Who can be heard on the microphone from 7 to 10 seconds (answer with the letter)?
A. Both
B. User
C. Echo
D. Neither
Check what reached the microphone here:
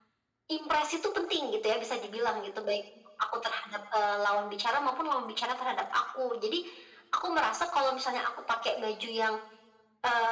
C